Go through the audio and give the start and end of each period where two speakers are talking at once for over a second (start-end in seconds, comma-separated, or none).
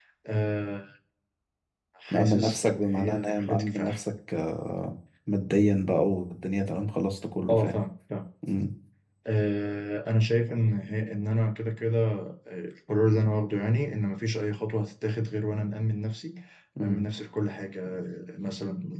2.1-4.0